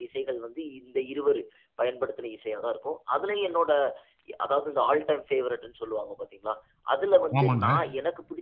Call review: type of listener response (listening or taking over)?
listening